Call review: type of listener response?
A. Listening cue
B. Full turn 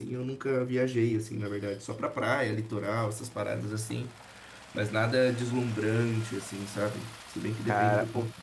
B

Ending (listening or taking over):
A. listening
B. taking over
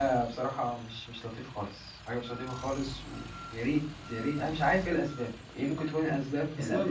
B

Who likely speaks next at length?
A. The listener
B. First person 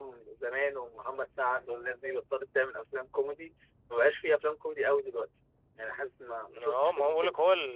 A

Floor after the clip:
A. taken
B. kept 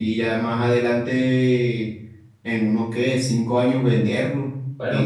B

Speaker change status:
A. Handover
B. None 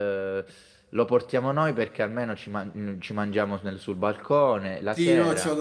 A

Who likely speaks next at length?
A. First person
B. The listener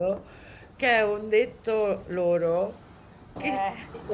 A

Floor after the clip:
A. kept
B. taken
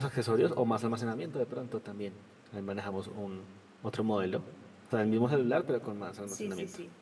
B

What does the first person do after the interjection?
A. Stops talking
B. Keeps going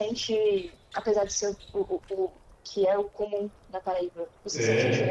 B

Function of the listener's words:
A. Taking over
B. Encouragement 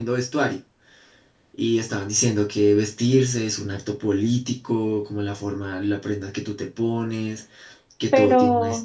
B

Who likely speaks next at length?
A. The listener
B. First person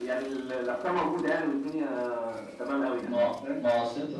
A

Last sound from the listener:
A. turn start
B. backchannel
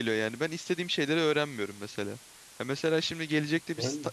B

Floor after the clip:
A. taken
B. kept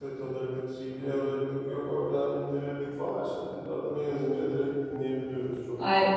A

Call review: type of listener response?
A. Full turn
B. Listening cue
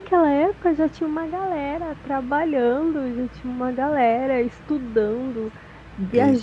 B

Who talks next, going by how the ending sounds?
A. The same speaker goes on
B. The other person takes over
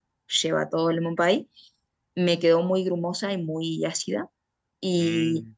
A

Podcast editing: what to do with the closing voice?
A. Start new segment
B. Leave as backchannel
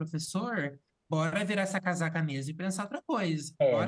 A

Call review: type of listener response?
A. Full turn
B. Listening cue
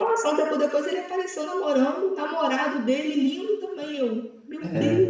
A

